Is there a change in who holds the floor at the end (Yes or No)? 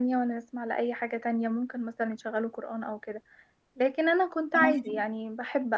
No